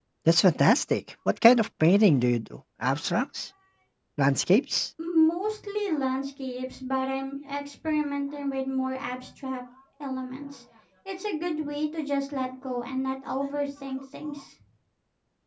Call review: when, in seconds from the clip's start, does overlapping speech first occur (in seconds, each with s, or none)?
none